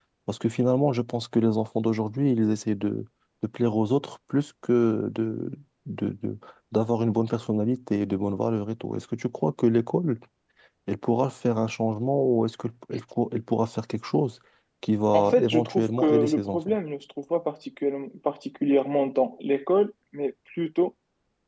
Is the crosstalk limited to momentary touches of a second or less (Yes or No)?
No